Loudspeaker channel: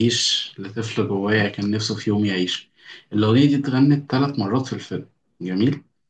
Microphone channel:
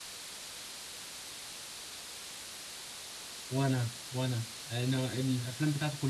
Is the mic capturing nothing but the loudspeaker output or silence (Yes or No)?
No